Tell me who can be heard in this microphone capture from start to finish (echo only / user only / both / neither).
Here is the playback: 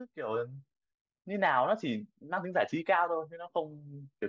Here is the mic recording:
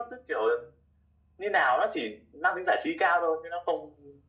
echo only